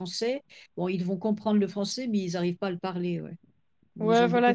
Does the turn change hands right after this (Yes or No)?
Yes